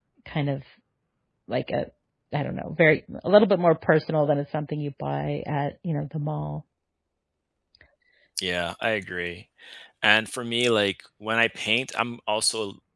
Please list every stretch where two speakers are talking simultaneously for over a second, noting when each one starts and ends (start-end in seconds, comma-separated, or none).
none